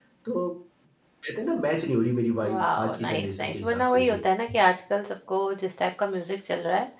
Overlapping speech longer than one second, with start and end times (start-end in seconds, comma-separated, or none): 2.4-4.2